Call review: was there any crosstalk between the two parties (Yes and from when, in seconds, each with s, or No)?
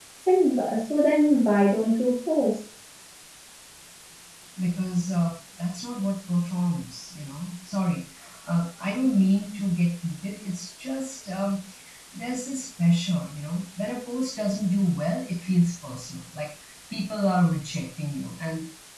No